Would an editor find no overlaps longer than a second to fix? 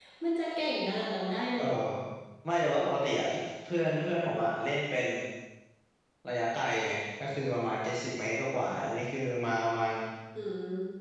Yes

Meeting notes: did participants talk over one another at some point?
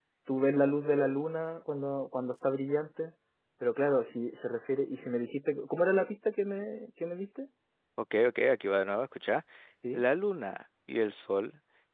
No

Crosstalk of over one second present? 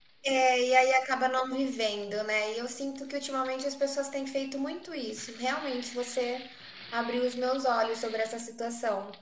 No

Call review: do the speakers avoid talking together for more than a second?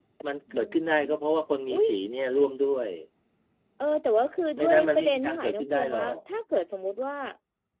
No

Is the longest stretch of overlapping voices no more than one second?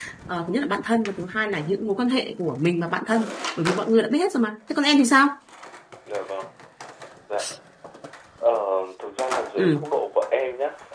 Yes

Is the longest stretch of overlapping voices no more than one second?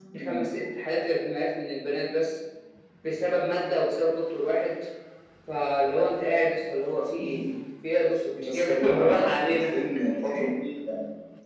No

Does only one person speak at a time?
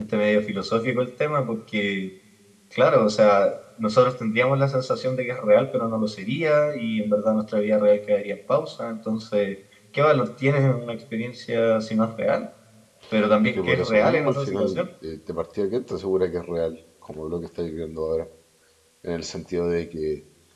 No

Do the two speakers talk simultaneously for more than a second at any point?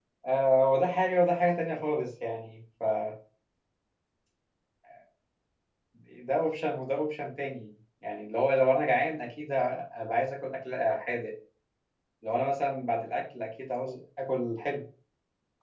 No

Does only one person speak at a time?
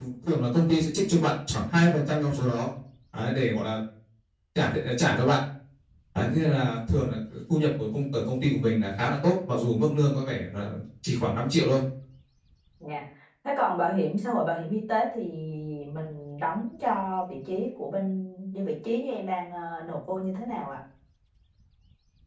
Yes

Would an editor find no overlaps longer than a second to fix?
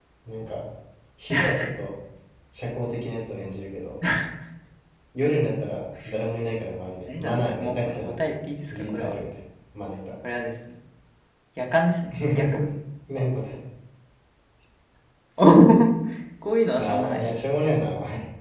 No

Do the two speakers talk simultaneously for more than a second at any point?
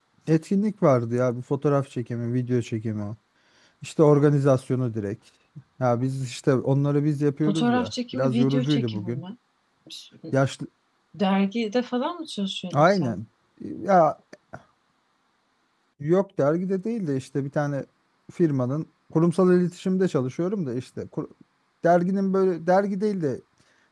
Yes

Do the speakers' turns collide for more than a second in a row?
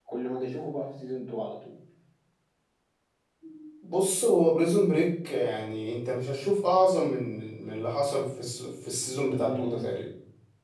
No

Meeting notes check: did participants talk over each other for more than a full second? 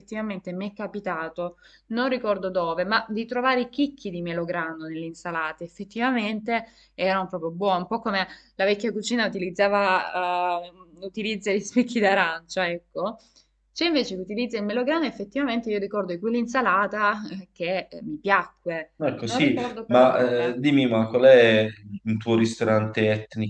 Yes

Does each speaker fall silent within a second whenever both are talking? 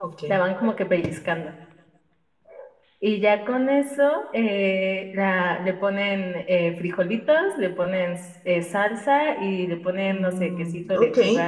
No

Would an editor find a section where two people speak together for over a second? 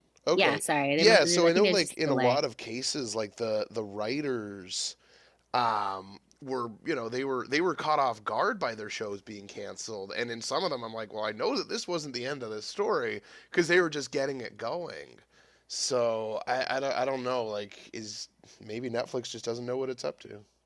Yes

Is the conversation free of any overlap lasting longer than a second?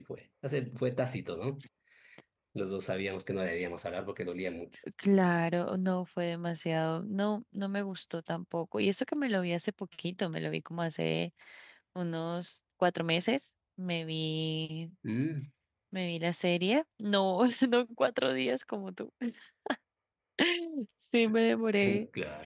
Yes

